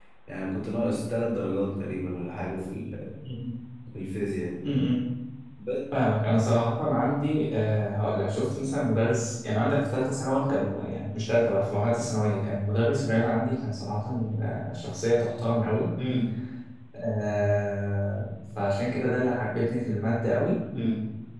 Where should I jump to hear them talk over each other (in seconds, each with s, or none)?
none